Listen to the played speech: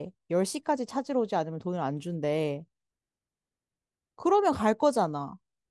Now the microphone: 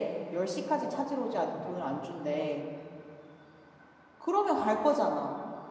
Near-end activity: present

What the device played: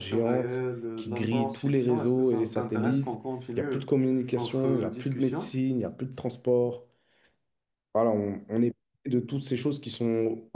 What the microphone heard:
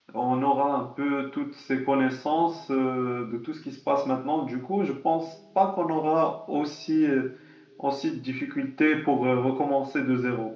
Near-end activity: present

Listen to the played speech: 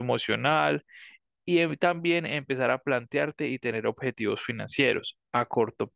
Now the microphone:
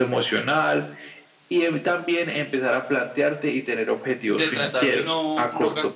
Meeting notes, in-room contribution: present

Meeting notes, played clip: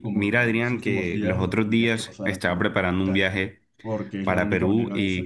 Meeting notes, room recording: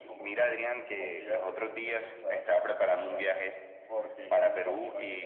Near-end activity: none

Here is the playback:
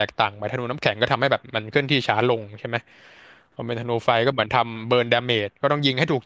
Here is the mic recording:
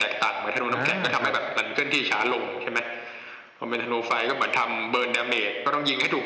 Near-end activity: present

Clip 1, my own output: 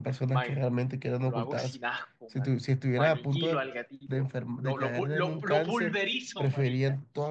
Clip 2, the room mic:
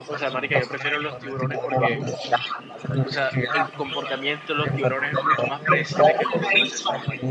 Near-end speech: present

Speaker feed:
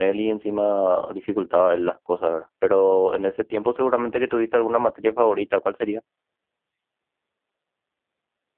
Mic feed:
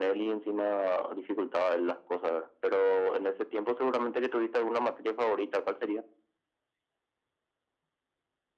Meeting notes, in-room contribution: none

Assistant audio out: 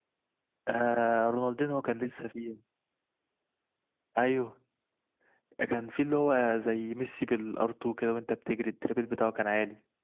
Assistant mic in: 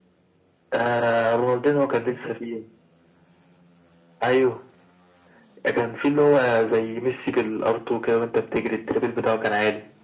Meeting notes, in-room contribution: none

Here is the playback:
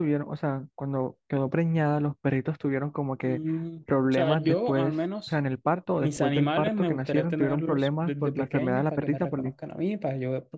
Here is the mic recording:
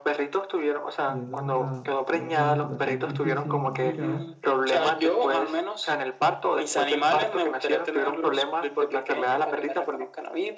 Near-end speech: present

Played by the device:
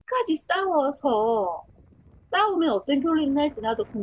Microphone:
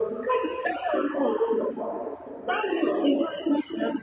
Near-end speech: none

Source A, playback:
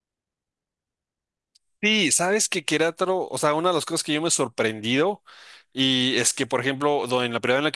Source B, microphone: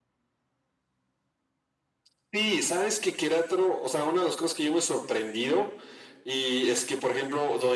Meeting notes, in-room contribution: none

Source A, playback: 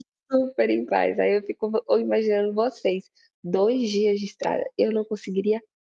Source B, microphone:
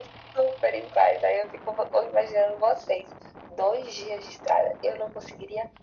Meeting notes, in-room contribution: none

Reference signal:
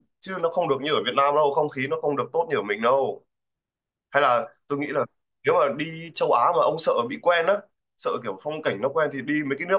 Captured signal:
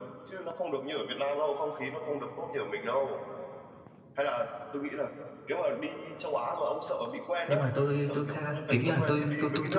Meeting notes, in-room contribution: present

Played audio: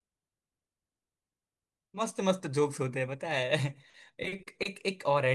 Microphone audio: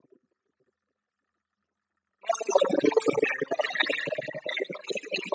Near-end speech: none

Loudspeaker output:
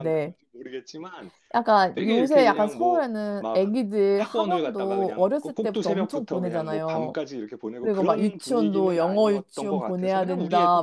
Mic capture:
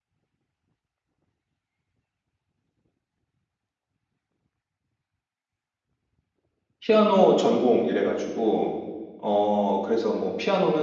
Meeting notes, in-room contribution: present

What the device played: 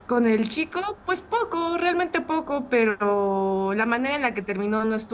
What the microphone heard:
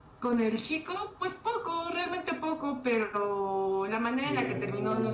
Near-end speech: present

